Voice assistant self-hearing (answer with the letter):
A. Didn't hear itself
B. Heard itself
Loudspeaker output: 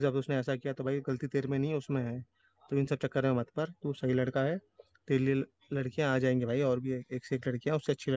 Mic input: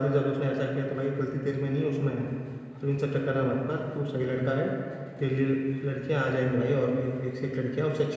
B